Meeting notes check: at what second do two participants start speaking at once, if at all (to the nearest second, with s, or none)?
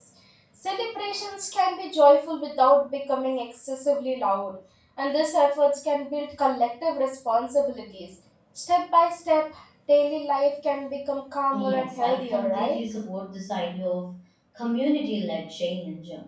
12 s